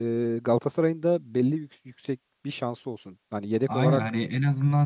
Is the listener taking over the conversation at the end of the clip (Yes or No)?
Yes